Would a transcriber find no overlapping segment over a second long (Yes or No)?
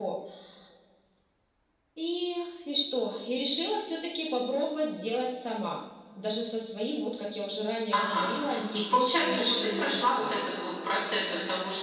No